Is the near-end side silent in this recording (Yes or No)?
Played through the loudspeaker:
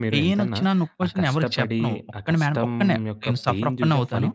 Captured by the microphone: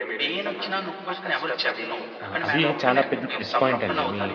No